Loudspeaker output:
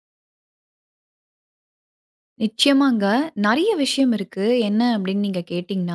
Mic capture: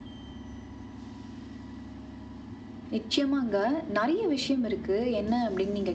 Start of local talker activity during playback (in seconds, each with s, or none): none